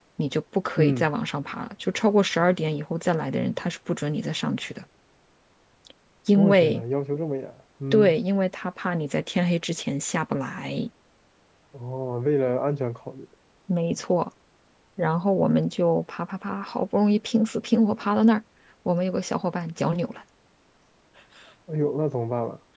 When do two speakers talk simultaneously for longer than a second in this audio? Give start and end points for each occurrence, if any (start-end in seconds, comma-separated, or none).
none